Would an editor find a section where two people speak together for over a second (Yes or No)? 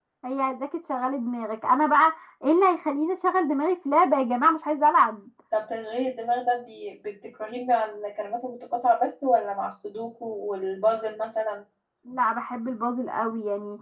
No